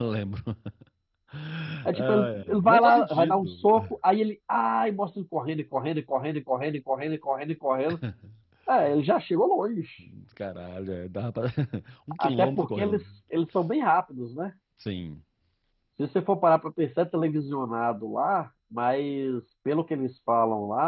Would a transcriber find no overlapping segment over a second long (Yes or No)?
No